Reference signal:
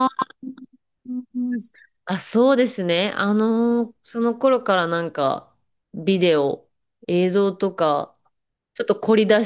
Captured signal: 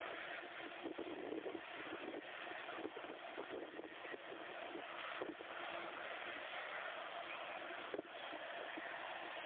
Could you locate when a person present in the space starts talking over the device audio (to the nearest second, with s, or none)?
none